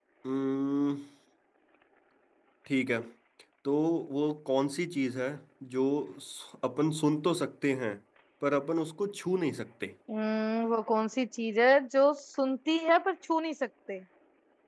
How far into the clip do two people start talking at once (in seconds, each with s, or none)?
none